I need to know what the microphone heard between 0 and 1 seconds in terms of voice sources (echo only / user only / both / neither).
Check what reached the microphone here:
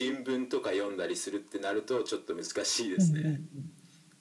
echo only